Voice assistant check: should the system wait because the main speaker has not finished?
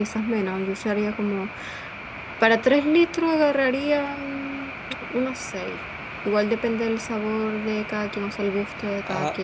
No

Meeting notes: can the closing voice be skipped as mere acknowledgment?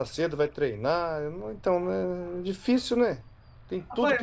No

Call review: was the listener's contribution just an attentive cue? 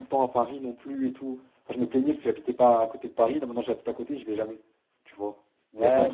No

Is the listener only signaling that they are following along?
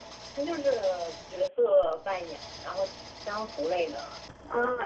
No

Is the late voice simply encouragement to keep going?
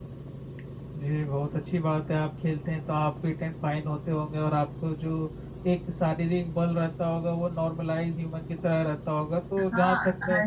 No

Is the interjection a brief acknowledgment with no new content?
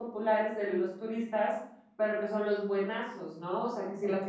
Yes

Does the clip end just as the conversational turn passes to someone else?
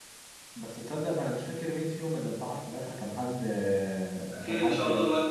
Yes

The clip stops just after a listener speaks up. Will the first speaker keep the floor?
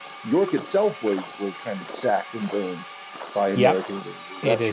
No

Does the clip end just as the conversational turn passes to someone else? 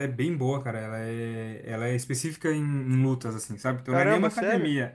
No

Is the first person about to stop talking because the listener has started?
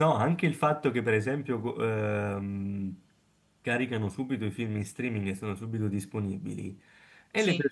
No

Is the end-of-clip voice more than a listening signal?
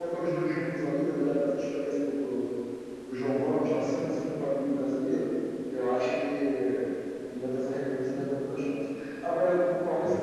No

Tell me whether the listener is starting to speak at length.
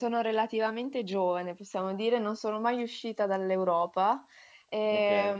No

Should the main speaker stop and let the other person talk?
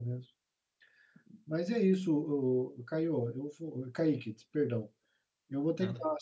No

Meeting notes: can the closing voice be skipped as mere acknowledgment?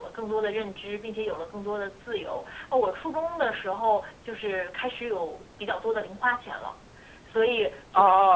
No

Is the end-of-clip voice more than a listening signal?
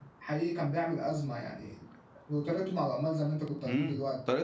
Yes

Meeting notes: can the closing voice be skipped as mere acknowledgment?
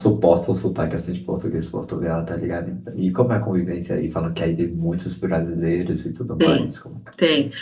No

